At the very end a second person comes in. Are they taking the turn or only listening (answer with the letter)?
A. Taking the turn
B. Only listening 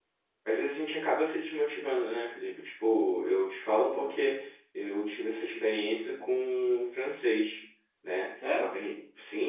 B